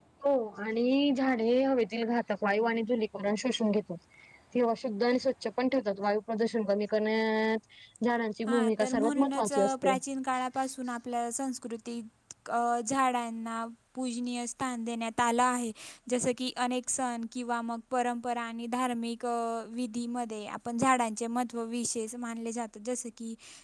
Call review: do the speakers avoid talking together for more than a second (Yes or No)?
No